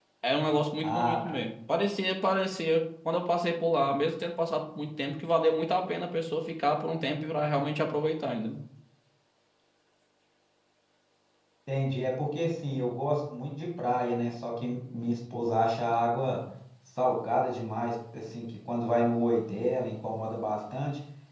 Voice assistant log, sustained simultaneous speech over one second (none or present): none